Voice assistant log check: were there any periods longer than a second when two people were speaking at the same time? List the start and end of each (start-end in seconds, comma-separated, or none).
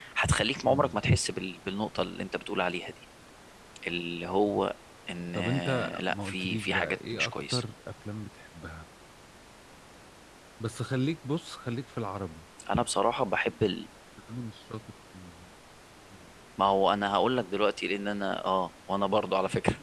5.3-7.6